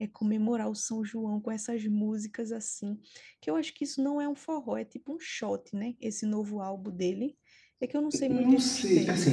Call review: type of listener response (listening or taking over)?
taking over